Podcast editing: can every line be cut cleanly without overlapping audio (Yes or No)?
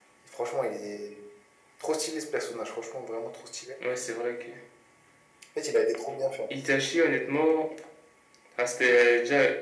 Yes